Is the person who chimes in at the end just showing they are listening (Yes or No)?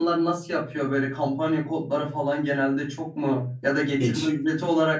Yes